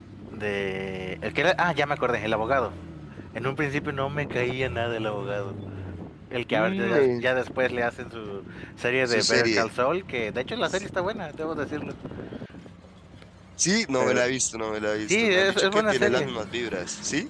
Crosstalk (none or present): present